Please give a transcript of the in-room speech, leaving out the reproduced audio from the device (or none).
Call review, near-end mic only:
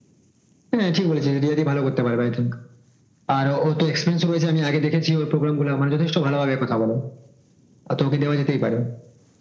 none